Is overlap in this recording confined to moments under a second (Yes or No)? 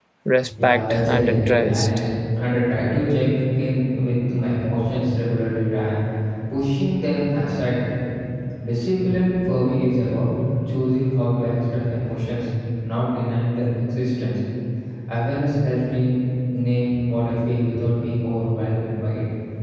No